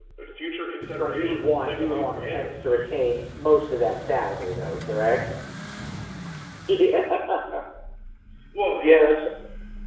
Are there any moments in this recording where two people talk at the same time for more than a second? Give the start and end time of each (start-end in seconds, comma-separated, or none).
1.0-2.6